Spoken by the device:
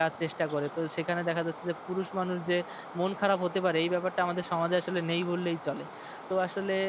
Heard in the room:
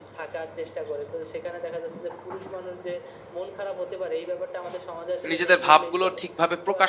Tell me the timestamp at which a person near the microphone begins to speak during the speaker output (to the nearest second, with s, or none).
5 s